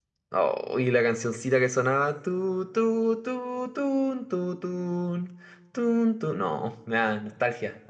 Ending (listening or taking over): taking over